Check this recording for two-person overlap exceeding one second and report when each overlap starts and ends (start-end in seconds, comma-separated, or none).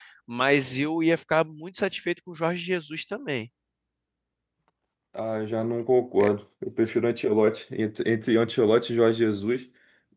none